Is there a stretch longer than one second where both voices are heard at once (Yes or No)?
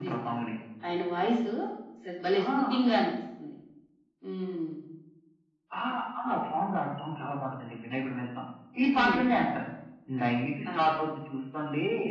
No